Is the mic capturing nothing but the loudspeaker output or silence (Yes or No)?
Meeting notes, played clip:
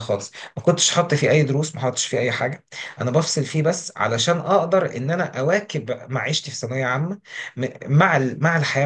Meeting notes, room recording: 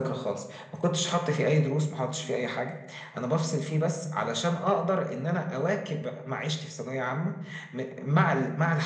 Yes